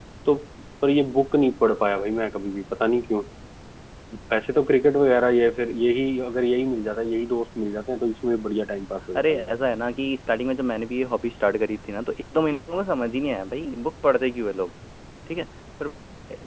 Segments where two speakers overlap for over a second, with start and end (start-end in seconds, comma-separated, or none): none